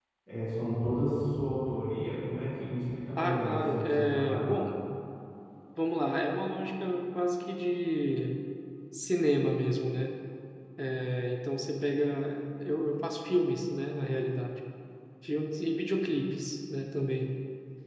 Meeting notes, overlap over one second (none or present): present